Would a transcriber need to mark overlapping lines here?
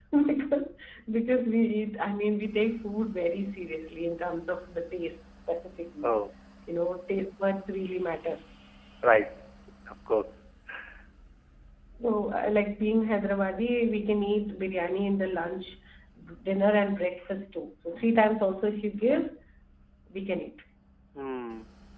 No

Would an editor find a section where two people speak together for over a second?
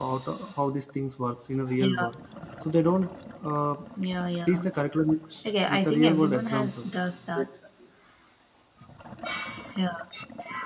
Yes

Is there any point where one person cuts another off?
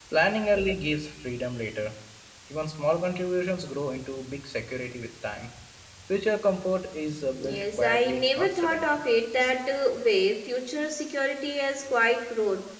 Yes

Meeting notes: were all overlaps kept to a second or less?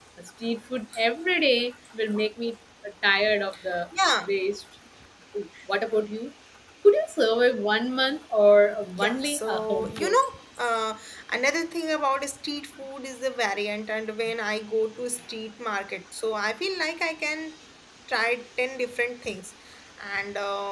No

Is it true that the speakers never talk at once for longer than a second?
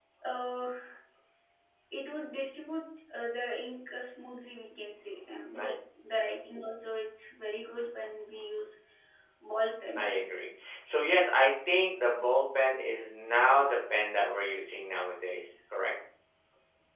Yes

